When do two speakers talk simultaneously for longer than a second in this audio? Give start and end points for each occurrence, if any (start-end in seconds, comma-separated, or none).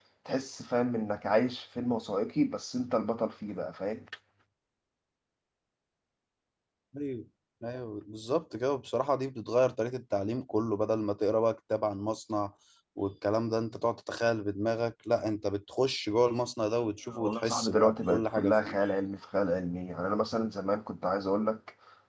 17.1-18.8